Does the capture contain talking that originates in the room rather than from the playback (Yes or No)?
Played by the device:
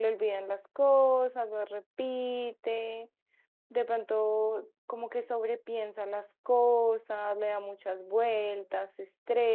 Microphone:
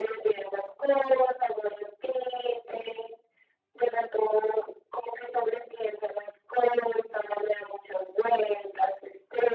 No